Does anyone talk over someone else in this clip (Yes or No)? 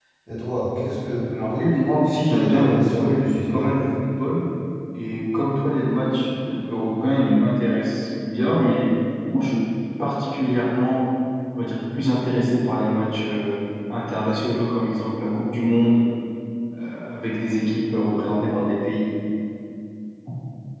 Yes